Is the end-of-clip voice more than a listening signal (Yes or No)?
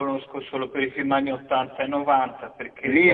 Yes